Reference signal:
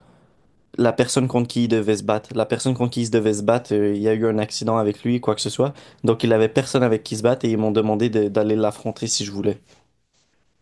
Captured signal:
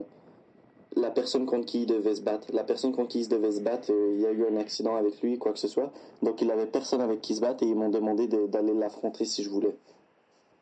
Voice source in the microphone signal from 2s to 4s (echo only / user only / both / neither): echo only